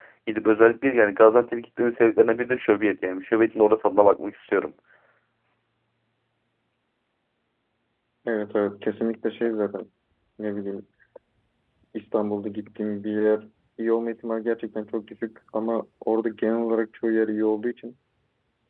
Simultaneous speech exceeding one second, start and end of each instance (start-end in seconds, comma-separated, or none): none